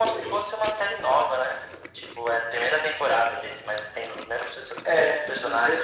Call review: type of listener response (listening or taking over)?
taking over